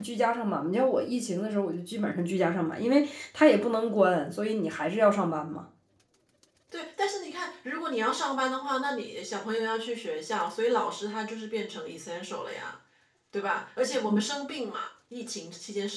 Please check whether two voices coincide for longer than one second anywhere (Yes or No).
No